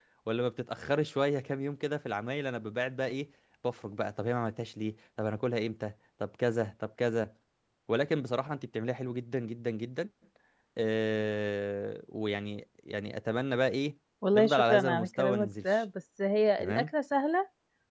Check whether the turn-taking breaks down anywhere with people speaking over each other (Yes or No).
Yes